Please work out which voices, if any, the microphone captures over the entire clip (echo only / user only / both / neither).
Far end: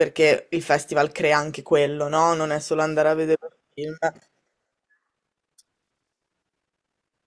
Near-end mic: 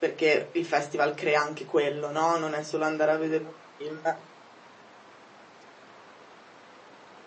echo only